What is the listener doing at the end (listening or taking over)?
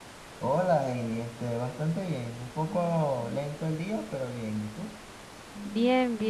taking over